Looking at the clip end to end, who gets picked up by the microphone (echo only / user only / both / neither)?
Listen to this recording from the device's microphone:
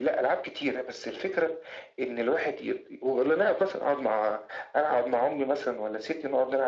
echo only